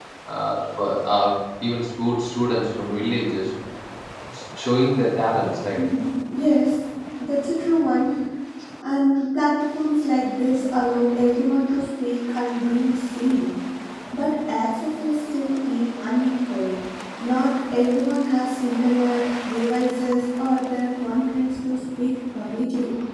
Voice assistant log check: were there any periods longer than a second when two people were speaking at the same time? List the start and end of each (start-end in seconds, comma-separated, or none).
none